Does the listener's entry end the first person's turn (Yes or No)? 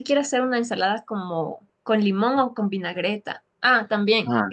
No